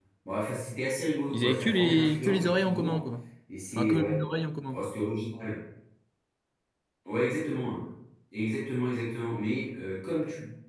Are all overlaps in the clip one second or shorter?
No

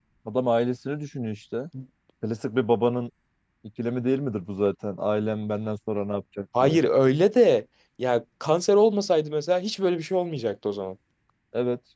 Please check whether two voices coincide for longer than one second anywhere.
No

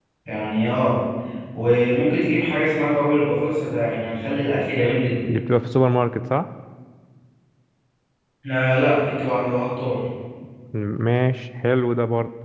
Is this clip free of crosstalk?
Yes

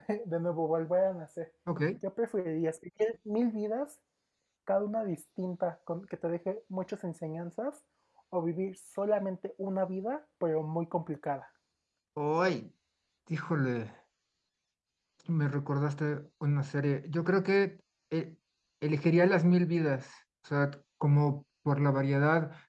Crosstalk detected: No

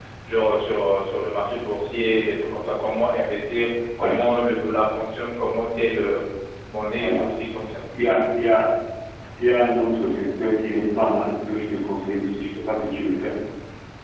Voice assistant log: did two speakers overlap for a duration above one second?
No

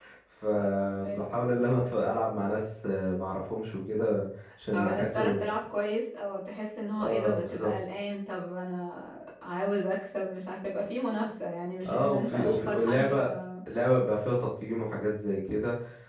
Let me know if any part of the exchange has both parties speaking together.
Yes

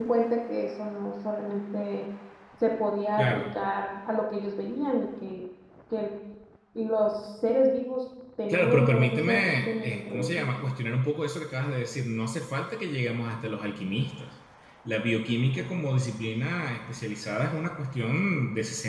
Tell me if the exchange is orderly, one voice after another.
No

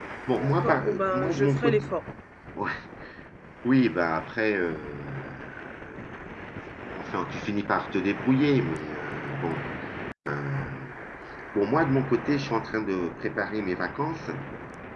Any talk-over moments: Yes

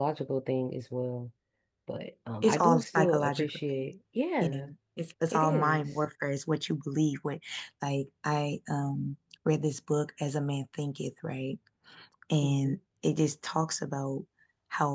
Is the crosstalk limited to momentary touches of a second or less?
No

